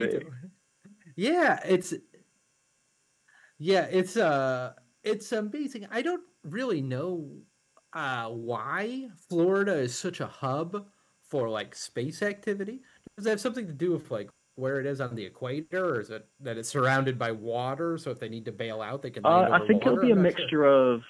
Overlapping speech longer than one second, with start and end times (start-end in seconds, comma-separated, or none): 19.2-20.5